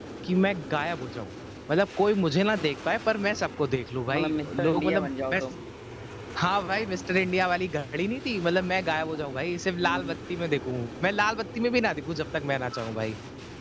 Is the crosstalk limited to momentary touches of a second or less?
No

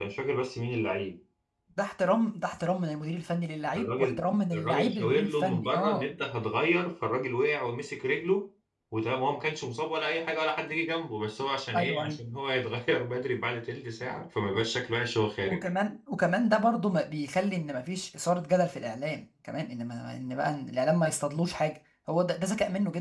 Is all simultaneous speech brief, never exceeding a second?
No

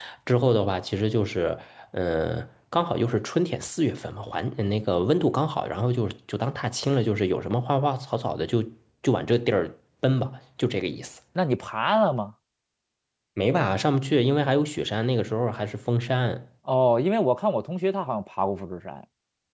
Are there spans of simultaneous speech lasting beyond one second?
No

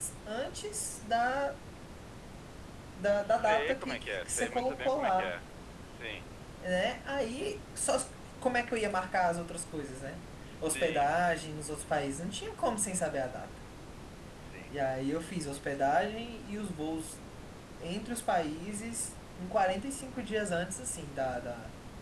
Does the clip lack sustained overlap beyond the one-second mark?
No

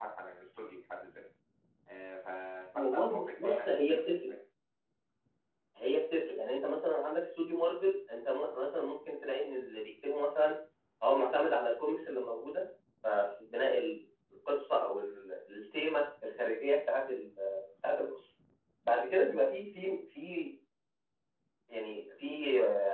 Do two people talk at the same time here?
Yes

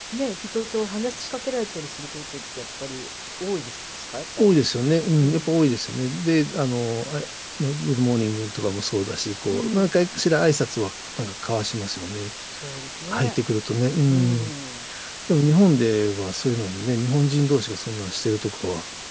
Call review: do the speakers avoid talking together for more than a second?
Yes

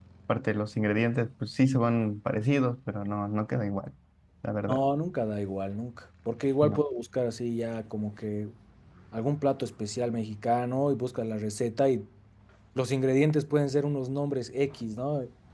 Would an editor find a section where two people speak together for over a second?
No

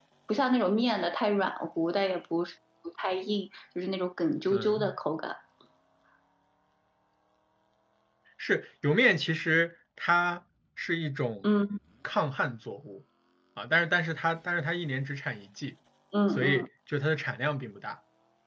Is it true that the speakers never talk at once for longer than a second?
Yes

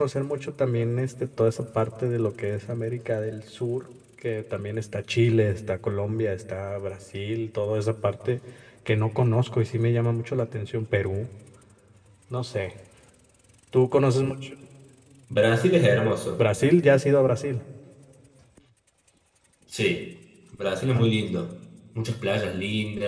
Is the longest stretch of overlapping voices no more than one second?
Yes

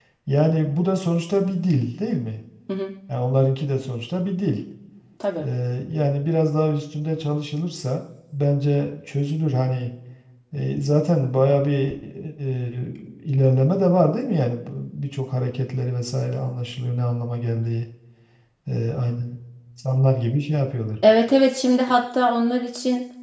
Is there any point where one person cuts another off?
No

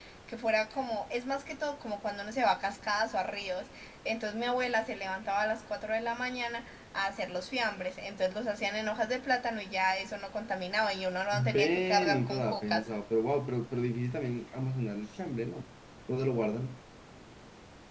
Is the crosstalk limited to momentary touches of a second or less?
No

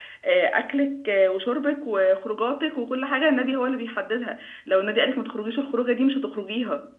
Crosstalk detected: No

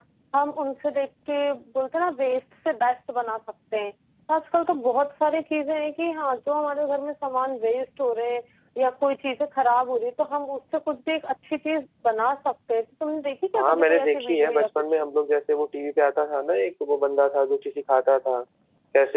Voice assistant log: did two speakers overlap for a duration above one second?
Yes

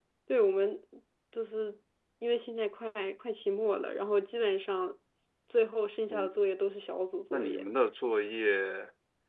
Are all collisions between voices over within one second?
Yes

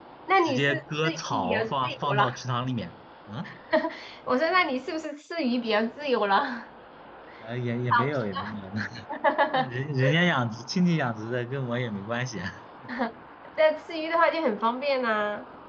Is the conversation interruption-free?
No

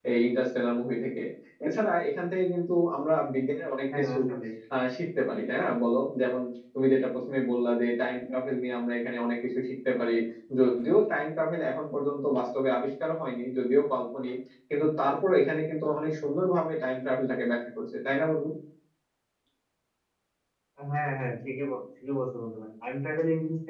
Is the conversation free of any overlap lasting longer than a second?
Yes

